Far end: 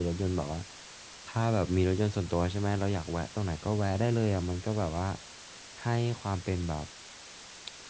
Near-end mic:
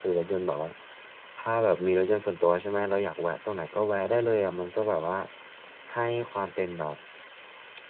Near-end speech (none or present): none